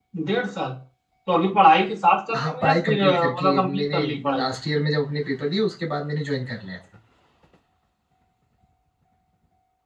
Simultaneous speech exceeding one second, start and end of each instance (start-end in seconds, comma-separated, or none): 2.4-4.5